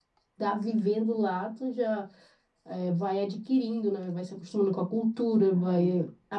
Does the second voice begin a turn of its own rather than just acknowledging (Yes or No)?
No